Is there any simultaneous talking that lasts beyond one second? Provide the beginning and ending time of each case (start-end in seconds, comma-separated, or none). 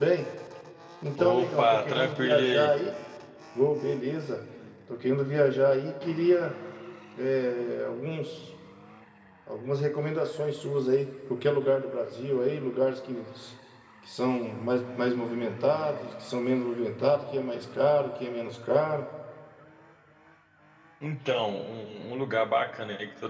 1.2-2.7